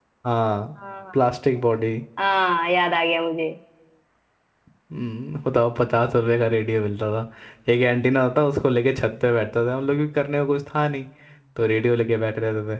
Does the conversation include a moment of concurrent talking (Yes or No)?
No